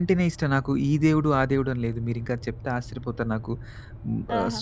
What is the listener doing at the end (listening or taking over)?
listening